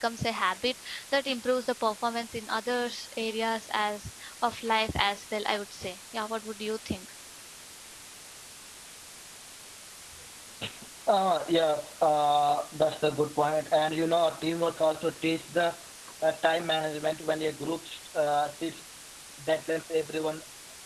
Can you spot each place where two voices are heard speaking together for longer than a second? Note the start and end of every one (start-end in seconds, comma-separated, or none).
none